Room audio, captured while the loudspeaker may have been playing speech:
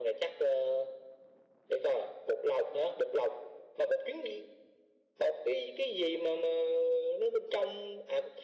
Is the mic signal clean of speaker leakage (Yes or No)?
No